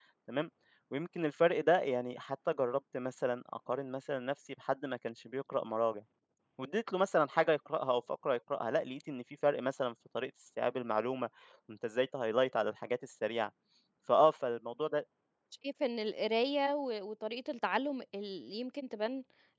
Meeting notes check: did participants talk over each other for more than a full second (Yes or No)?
No